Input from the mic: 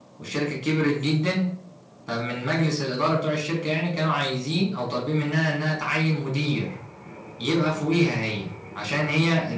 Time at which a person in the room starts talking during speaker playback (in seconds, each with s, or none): none